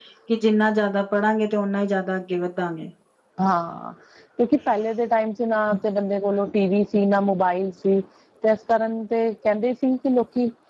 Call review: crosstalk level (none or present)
none